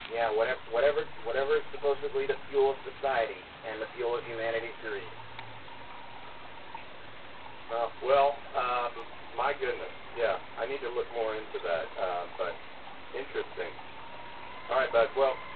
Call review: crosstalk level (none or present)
none